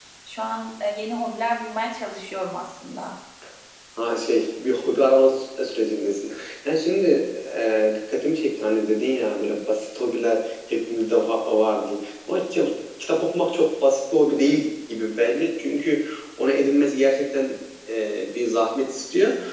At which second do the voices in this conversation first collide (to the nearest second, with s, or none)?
none